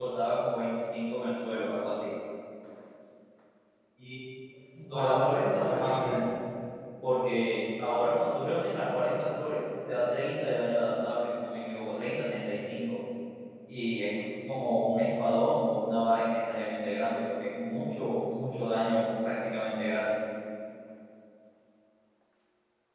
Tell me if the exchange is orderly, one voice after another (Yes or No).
No